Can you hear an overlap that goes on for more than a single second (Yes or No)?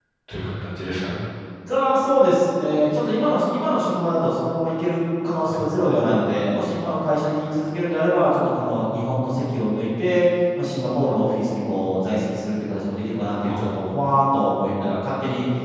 No